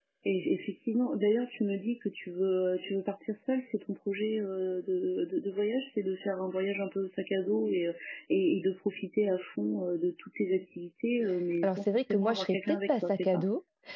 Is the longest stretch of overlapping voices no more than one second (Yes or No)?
No